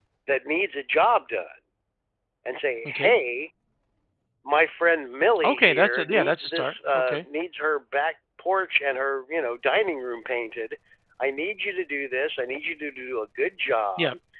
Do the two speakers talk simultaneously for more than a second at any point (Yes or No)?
Yes